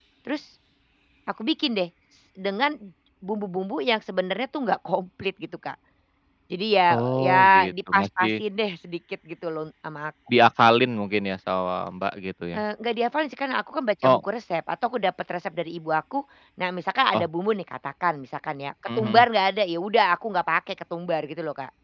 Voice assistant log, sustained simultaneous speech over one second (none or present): present